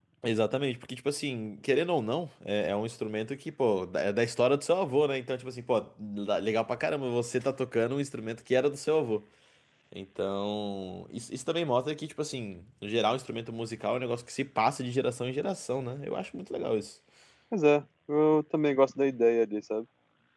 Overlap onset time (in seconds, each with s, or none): none